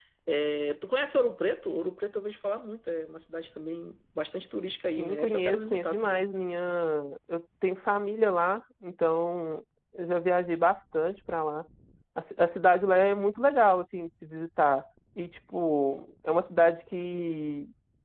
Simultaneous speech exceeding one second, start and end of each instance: 5.0-6.2

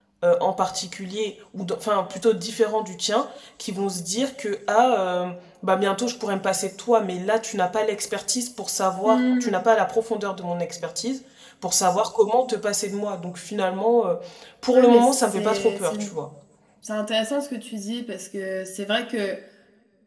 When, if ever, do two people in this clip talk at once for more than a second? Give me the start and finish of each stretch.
14.7-16.1

